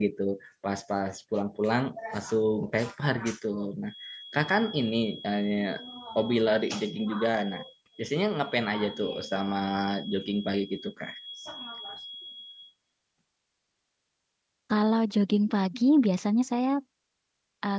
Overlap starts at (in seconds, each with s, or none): none